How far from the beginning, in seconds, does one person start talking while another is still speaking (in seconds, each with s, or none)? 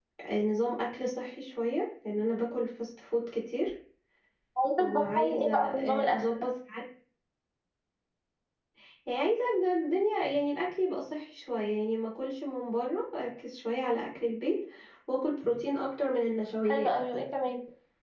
4.8 s